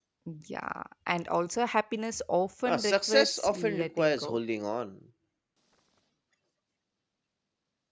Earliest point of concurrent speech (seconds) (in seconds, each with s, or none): 2.6 s